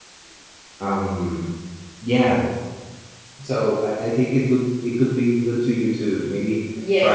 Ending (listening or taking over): taking over